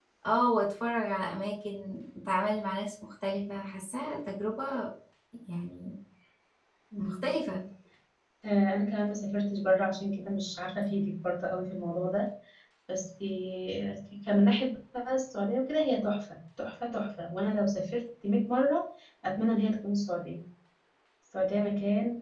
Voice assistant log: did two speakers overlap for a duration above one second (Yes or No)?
No